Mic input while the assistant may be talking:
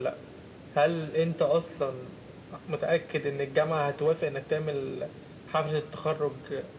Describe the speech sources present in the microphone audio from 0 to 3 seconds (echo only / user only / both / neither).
echo only